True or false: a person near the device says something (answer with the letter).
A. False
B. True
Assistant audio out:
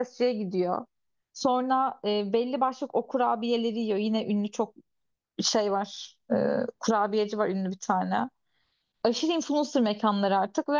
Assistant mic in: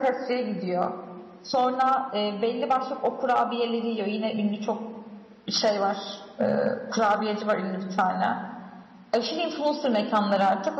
A